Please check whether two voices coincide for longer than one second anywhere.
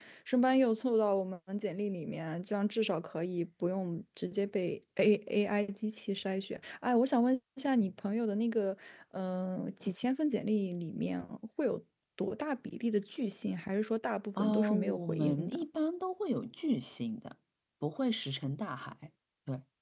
Yes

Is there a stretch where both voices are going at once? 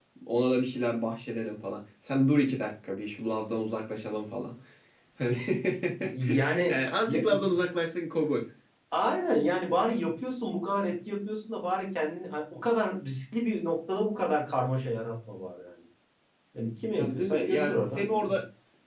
Yes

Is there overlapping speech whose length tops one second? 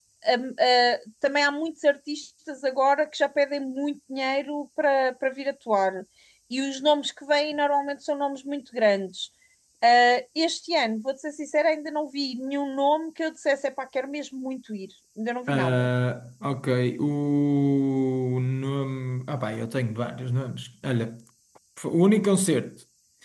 No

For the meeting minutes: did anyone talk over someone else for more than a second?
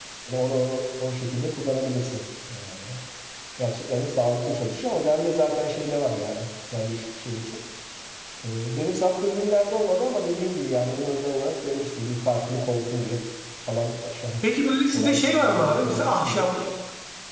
Yes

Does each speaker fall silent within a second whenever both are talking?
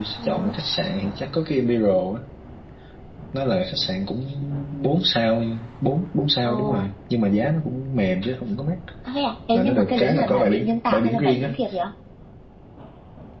No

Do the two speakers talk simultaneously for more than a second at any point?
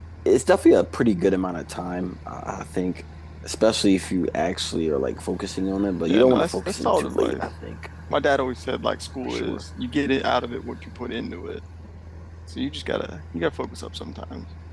Yes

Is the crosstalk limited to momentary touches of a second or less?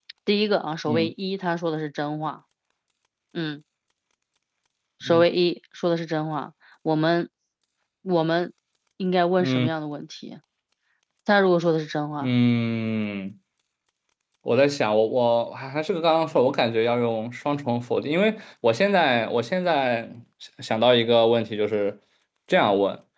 Yes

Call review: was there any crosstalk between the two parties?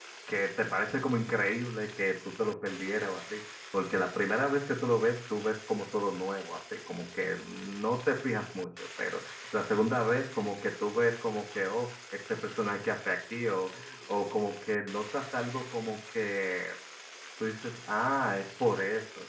No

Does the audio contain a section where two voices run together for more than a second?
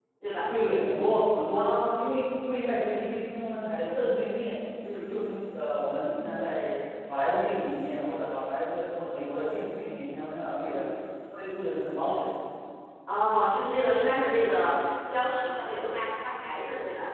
No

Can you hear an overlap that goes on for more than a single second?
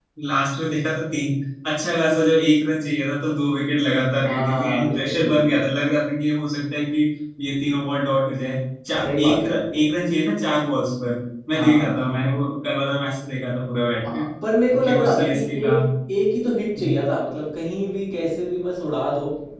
Yes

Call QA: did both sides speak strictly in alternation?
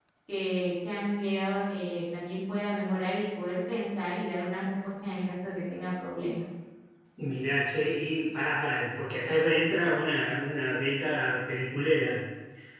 Yes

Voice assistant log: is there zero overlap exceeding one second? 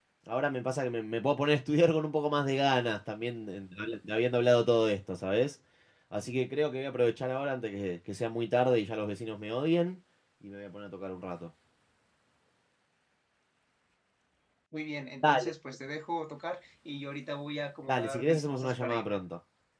No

